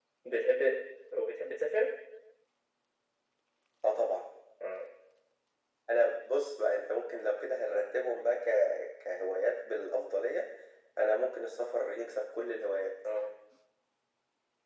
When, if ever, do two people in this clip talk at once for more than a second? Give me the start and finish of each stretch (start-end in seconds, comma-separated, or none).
none